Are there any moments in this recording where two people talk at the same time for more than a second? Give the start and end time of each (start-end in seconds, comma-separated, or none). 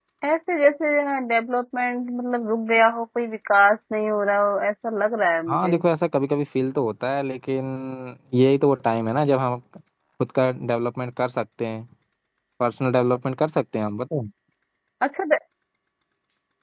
none